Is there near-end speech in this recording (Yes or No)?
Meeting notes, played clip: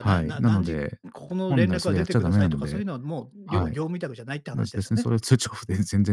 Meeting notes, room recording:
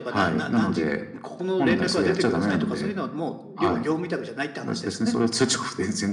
No